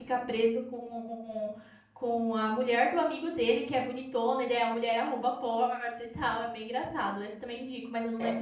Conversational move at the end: taking over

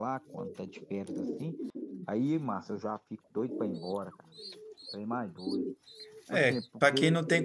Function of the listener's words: taking over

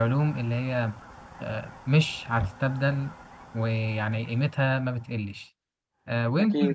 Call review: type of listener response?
listening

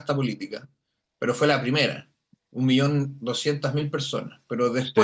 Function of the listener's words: listening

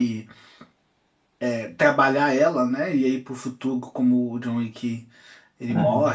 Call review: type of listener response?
listening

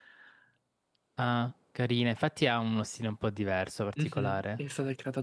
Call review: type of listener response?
taking over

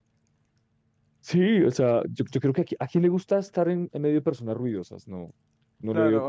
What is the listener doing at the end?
taking over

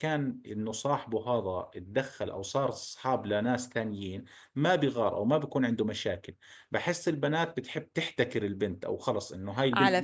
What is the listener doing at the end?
taking over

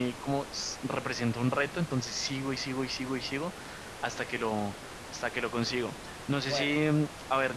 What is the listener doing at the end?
listening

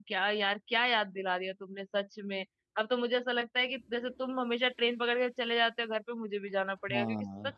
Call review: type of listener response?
listening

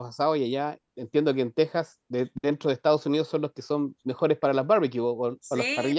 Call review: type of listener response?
taking over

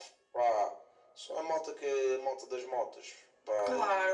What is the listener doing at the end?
taking over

